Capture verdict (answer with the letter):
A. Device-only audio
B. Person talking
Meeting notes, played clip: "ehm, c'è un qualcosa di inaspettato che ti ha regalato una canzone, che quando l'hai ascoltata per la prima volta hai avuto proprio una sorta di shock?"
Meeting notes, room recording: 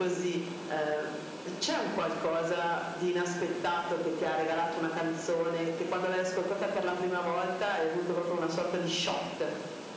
A